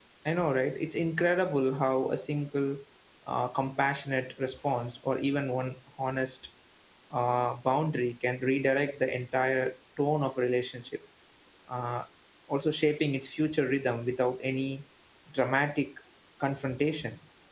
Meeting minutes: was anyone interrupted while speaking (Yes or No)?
No